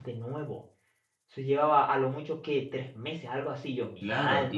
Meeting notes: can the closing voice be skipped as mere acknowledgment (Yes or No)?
No